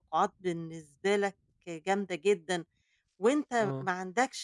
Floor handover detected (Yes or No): No